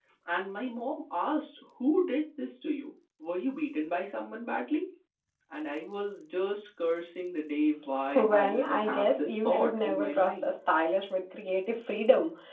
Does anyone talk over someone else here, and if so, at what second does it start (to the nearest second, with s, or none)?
8 s